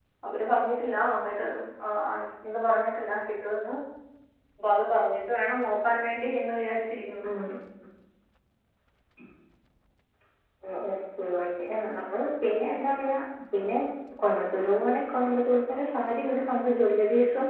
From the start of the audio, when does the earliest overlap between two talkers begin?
none

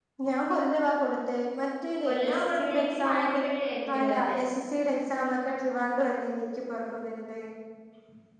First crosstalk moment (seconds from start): 2.0 s

